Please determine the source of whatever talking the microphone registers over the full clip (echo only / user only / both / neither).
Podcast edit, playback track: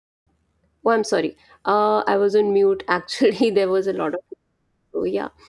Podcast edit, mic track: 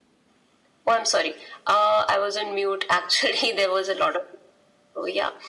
echo only